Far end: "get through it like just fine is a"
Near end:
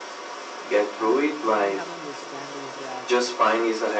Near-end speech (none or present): present